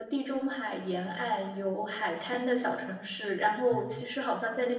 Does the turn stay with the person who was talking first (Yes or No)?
Yes